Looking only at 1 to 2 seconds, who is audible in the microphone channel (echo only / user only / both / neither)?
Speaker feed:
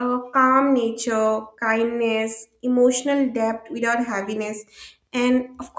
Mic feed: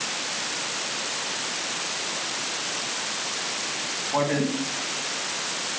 neither